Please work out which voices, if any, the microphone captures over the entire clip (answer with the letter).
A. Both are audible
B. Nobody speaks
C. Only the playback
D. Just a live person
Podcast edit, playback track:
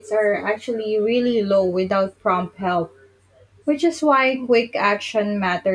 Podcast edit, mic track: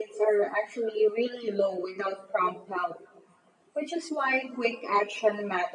C